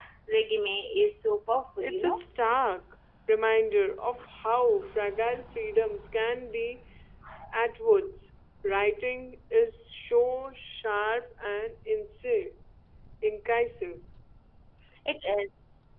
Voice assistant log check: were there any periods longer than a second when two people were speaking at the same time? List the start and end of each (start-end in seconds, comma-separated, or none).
none